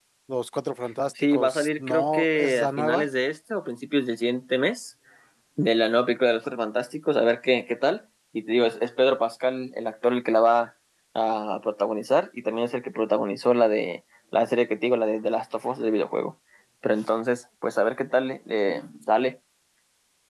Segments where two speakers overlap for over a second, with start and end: 1.3-3.0

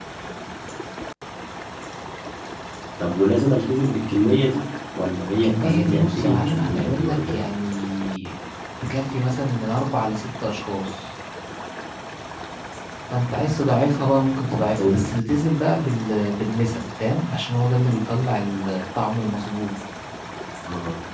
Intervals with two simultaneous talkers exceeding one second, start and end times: 5.4-7.5

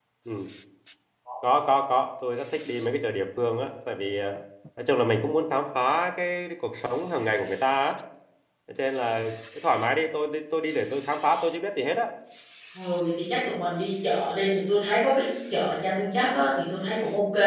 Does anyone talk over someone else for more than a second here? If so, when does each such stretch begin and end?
none

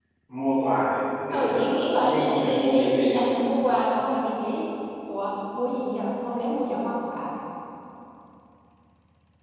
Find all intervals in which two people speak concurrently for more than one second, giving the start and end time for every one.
1.3-3.5

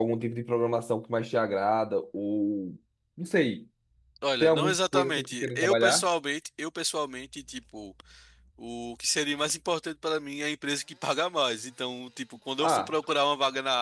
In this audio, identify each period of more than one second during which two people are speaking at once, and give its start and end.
4.4-6.0

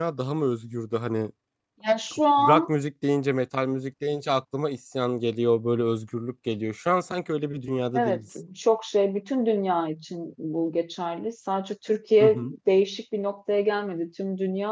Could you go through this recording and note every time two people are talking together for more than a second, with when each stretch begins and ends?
none

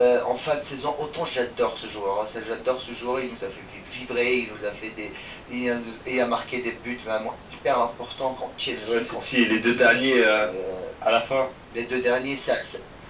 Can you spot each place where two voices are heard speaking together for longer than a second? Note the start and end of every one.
8.7-10.2

